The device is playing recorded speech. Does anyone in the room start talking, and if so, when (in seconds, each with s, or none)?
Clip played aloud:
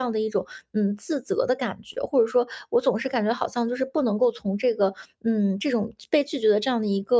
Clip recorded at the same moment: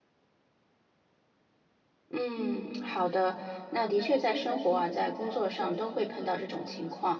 2.1 s